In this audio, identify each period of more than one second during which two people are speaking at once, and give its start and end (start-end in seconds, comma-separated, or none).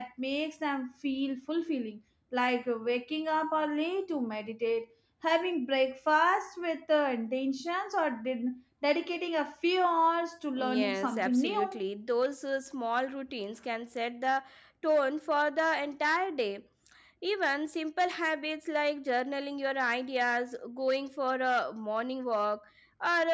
10.6-11.8